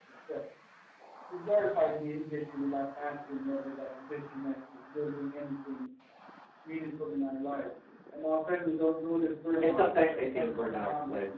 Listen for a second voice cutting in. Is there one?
Yes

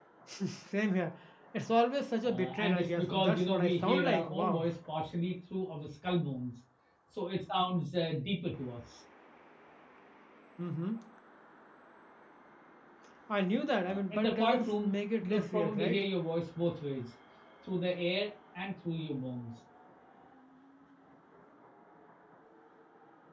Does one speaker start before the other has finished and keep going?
Yes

